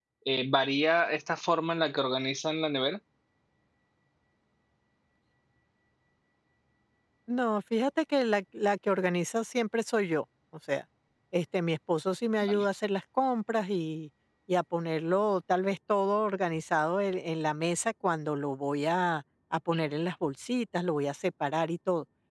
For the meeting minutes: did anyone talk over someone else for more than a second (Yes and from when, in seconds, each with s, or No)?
No